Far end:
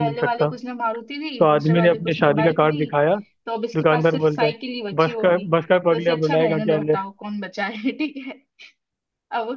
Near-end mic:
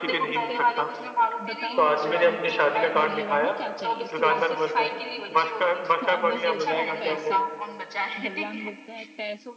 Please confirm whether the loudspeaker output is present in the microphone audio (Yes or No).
Yes